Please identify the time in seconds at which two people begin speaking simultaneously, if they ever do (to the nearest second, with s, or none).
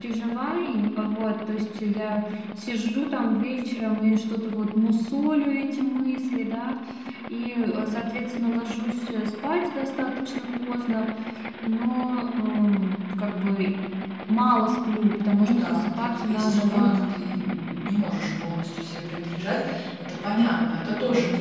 15 s